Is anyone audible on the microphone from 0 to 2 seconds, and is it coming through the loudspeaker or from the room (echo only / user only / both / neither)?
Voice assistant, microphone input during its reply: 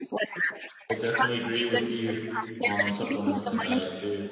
both